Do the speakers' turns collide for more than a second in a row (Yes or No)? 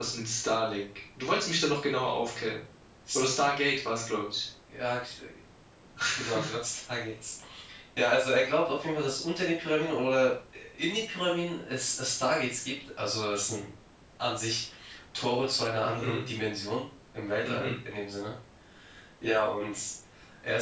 No